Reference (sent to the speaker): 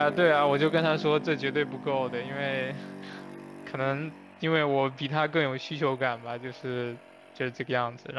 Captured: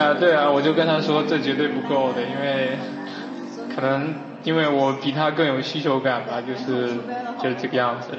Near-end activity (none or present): present